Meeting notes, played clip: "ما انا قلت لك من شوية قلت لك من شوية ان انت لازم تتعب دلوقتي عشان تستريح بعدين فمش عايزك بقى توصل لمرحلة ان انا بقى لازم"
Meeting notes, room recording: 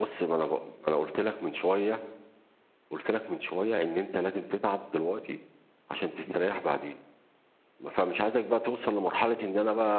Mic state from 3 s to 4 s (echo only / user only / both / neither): echo only